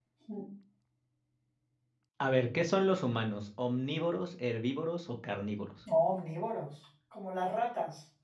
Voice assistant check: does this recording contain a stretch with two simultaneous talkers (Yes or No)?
No